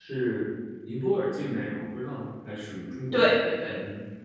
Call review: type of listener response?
taking over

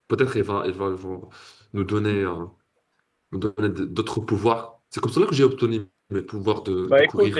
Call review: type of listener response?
taking over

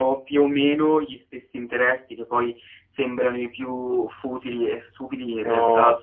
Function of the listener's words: listening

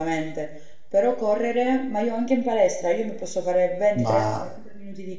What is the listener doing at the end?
listening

